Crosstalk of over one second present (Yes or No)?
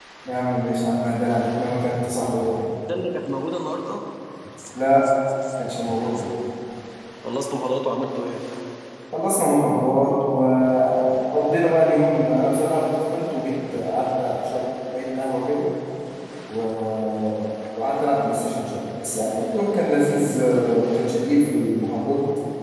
No